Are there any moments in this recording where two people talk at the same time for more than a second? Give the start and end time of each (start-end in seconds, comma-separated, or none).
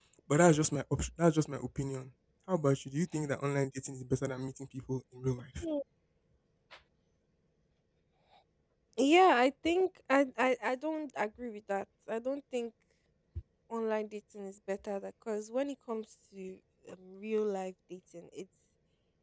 none